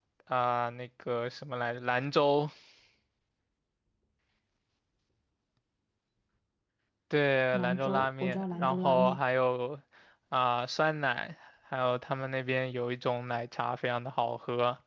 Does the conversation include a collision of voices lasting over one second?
Yes, from 7.5 s

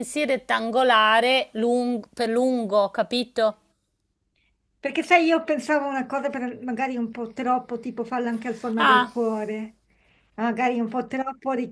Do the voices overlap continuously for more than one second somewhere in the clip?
No

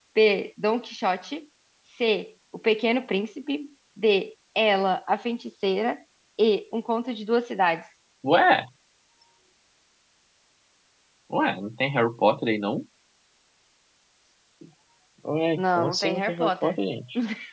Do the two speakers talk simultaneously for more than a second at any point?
Yes, from 15.6 s

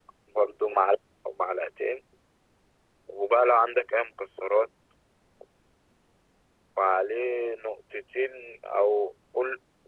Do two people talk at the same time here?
No

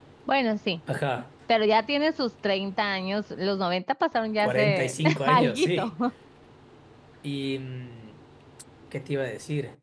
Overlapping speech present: Yes, from 4.4 s

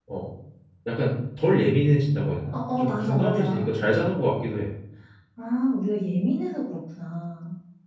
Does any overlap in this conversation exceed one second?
Yes, from 2.5 s

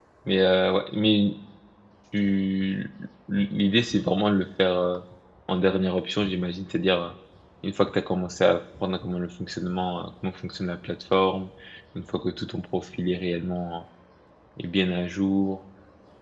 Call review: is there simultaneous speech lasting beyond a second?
No

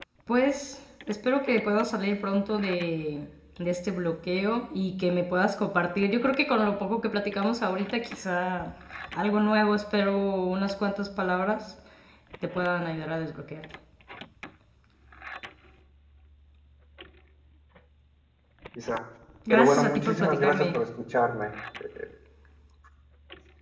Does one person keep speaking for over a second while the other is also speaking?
Yes, from 19.5 s

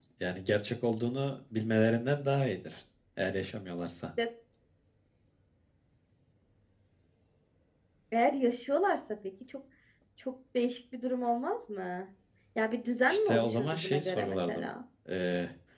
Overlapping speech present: Yes, from 13.1 s

